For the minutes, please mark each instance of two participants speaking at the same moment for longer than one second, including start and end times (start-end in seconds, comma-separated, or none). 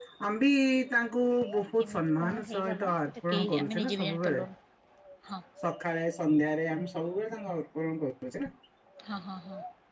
1.6-4.4